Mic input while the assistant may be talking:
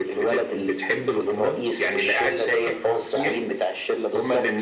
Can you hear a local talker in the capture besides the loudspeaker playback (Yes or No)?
No